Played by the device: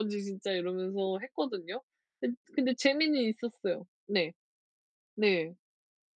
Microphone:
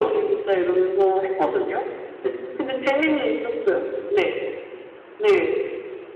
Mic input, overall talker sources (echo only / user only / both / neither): echo only